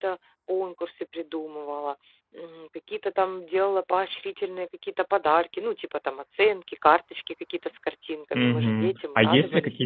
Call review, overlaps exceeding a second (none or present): present